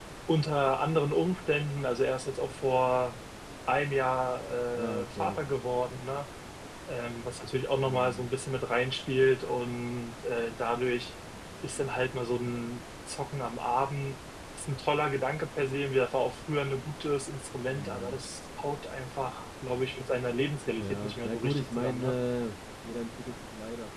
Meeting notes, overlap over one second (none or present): present